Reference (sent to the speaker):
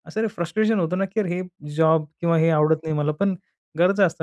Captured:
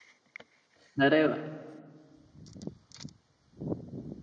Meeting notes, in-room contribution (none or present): present